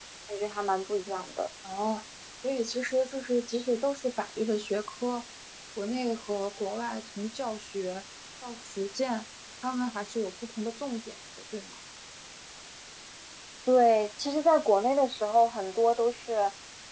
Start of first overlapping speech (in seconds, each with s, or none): none